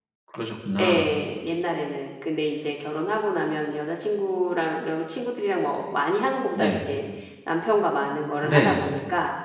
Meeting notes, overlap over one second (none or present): none